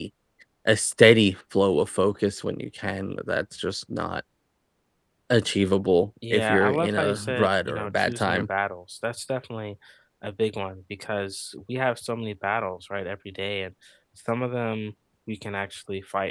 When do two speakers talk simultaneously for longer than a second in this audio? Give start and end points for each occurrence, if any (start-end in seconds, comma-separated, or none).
6.3-8.5